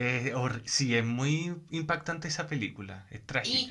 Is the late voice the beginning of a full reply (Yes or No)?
Yes